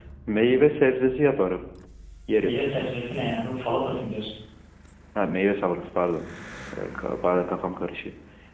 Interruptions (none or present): none